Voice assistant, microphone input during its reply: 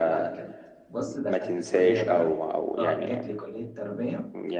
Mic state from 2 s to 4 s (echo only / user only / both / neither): both